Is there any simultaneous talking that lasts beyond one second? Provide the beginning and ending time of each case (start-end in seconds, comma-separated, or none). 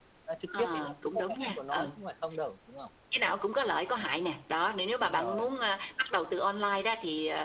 0.6-1.9